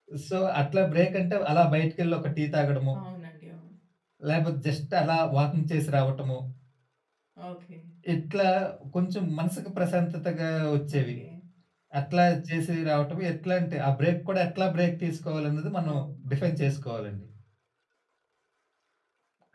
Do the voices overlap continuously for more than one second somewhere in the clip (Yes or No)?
No